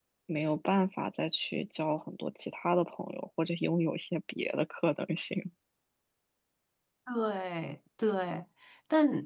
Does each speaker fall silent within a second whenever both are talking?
Yes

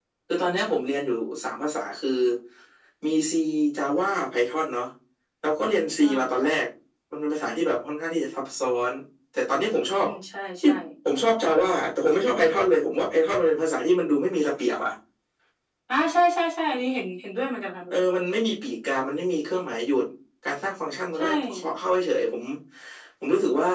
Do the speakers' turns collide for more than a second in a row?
No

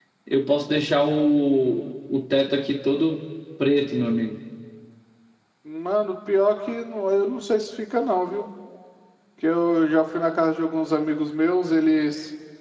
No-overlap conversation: Yes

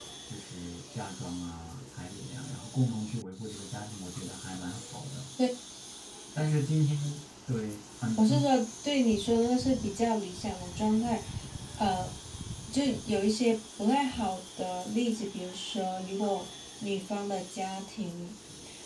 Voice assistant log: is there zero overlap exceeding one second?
Yes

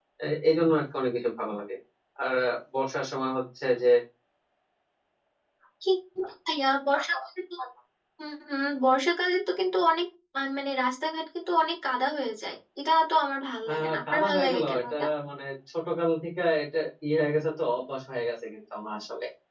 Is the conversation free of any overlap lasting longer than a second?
No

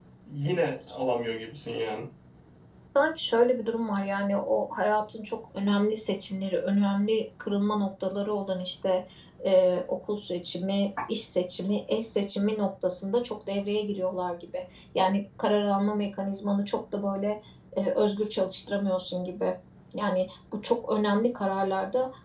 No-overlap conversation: Yes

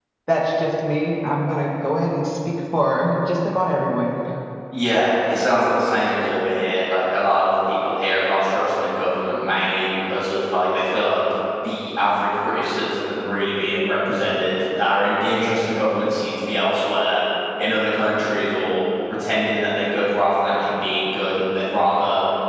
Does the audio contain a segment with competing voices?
No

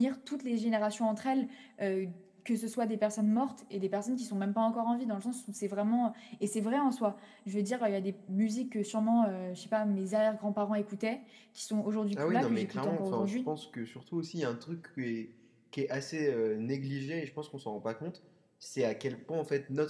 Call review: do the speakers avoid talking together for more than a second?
No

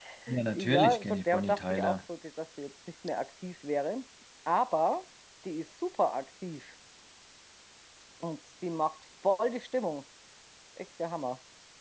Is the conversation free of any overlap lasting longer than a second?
No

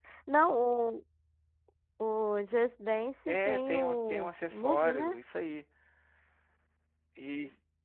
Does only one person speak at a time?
No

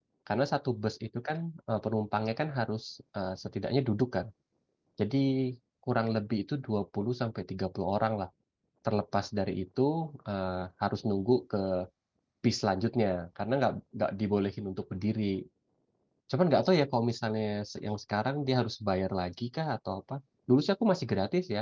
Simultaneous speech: No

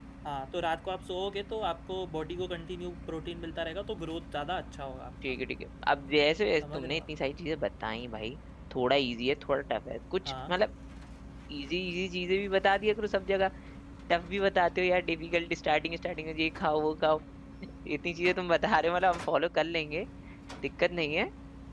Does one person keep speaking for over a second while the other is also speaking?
No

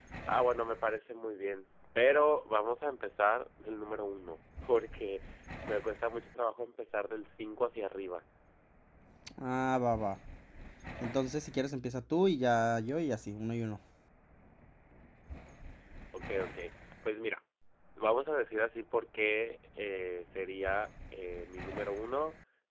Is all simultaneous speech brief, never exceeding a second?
Yes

